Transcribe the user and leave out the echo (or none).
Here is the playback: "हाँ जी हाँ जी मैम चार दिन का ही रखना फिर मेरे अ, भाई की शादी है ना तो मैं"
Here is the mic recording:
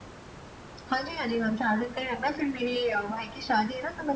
none